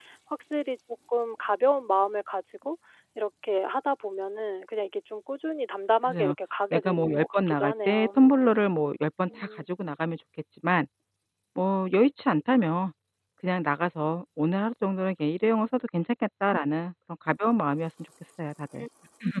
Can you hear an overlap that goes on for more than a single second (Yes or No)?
Yes